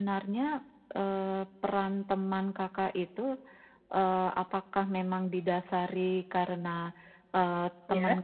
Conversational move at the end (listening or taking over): listening